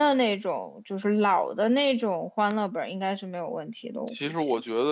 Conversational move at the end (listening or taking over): taking over